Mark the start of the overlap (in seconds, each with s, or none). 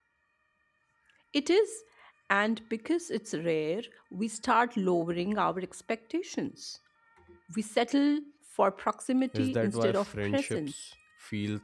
9.3 s